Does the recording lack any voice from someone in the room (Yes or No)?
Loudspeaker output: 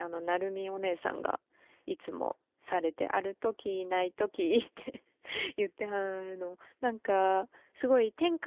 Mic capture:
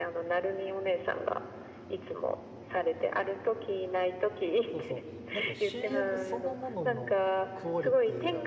No